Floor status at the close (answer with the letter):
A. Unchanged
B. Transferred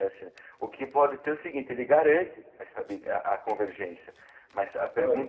A